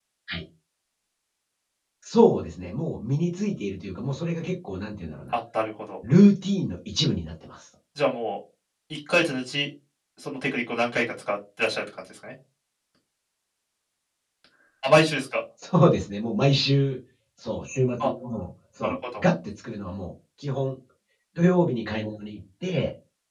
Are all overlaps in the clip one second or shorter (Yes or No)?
Yes